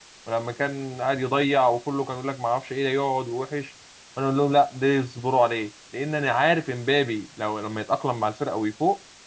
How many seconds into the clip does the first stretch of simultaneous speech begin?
none

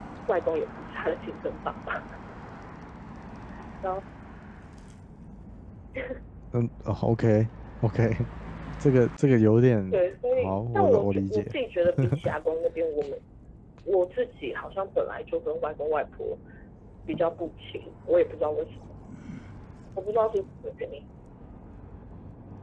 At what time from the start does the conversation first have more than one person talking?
9.9 s

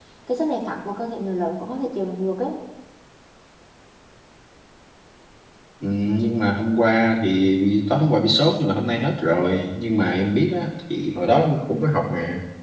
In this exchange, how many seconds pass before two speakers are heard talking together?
none

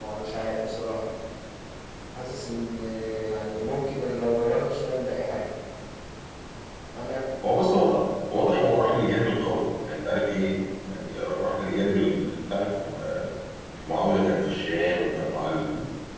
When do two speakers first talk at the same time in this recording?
none

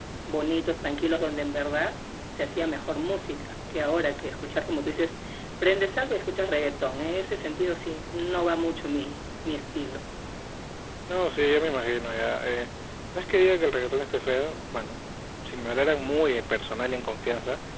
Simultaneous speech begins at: none

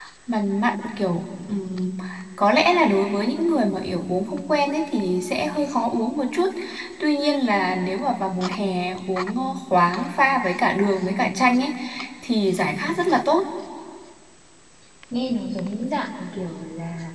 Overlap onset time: none

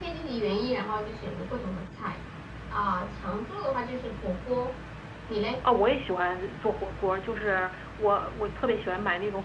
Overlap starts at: none

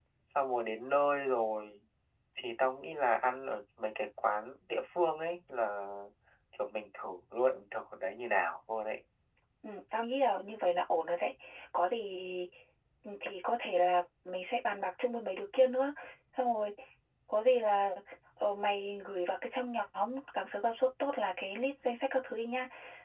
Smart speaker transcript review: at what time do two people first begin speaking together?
none

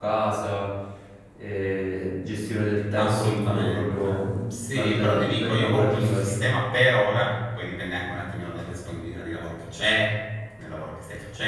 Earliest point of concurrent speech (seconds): 2.9 s

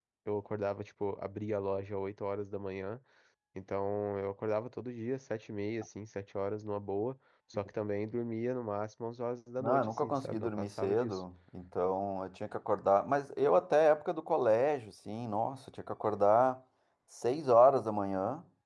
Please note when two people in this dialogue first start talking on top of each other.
9.6 s

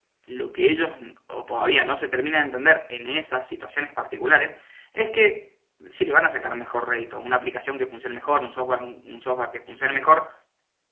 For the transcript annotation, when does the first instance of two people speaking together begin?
none

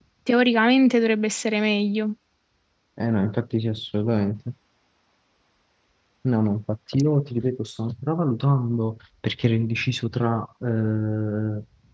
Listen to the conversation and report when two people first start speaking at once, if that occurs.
none

